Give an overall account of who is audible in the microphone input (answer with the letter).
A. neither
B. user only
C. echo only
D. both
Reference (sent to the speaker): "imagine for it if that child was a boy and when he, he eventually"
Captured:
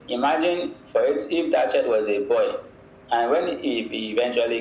C